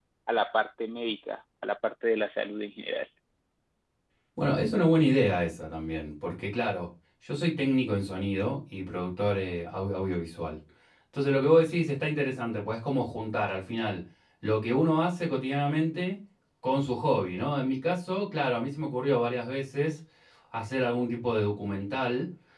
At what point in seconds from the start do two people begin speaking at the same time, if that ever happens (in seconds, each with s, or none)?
none